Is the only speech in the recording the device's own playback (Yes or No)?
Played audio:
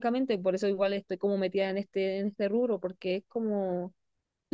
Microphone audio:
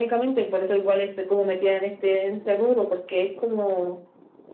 Yes